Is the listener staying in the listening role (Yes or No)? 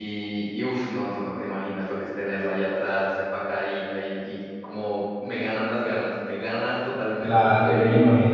No